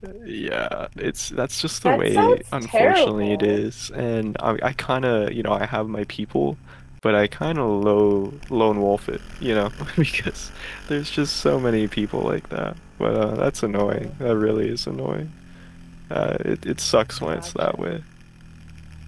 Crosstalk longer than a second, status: present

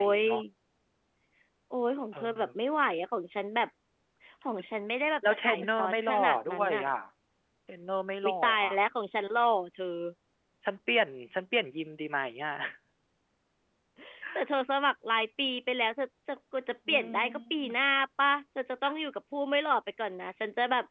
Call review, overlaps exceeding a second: present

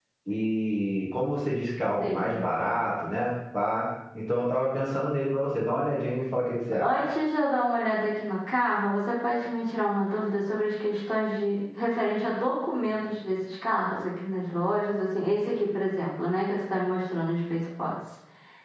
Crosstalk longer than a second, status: none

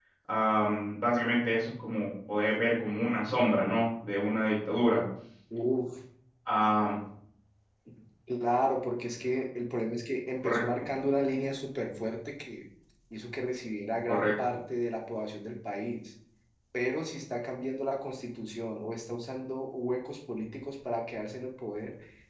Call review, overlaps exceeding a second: none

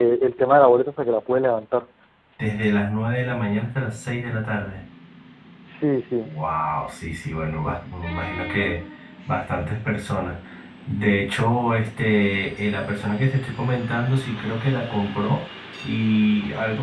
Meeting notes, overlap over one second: none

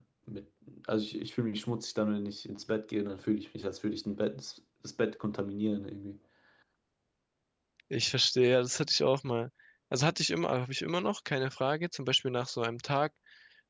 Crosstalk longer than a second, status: none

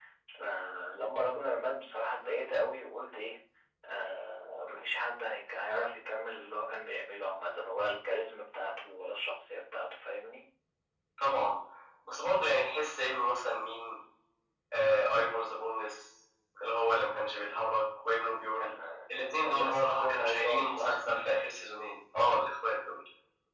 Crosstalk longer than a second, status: present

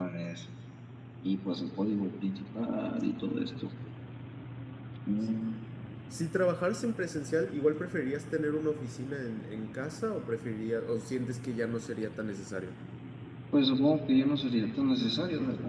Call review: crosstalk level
none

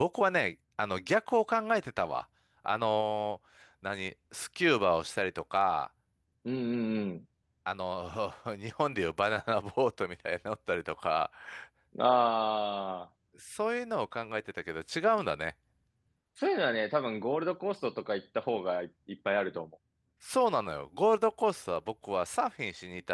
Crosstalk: none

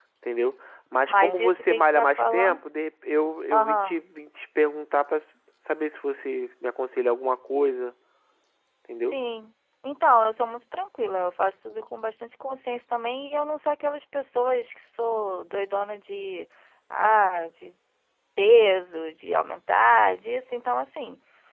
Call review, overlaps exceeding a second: present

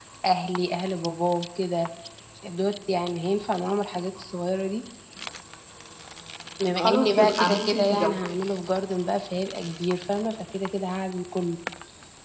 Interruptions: present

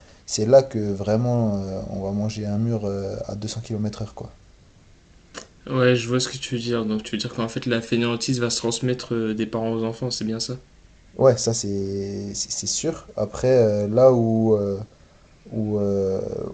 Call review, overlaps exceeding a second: none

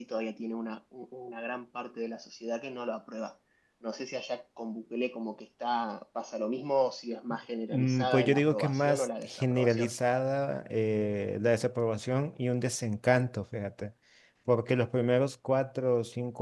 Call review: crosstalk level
present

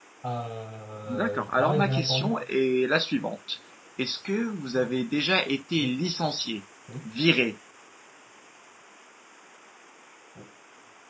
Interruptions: present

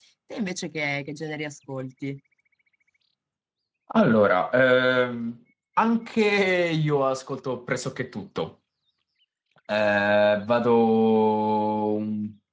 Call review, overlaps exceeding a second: none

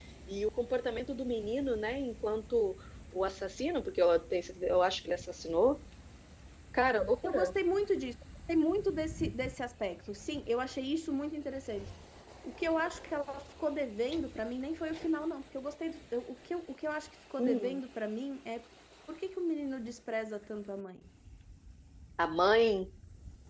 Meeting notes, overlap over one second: none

